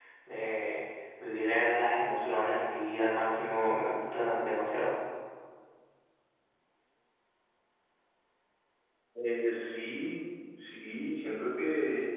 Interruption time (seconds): none

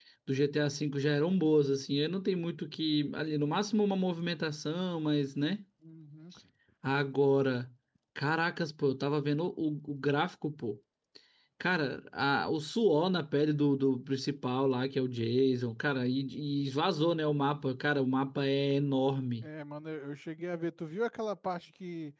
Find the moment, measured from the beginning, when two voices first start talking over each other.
none

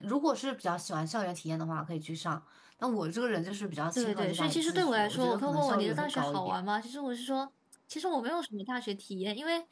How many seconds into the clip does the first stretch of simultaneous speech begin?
4.0 s

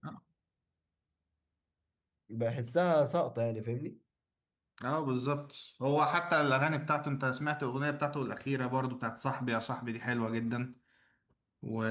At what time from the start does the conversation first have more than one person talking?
none

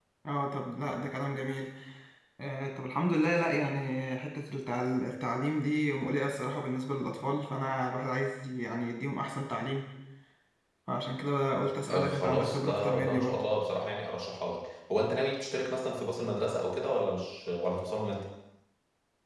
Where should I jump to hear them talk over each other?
11.9 s

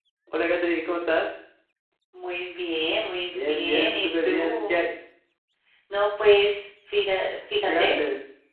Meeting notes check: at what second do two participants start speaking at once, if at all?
3.3 s

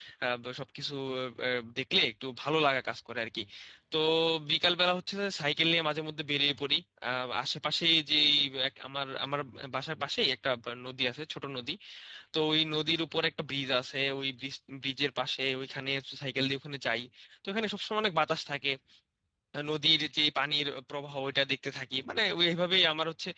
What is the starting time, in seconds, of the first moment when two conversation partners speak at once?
none

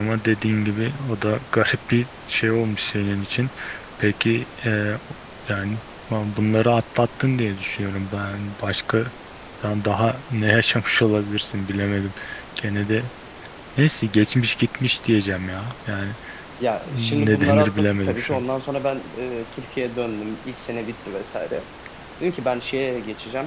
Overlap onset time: 16.9 s

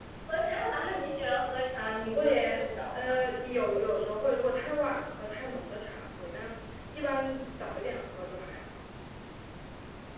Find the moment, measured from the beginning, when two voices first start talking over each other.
2.0 s

